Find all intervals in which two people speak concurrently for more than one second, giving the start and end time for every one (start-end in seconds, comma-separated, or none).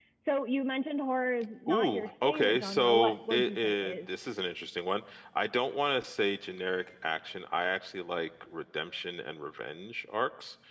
1.7-3.9